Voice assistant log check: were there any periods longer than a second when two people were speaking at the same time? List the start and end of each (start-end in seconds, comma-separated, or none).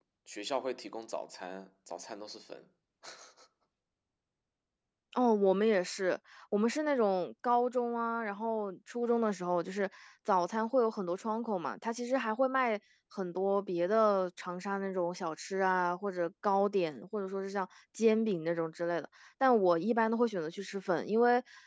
none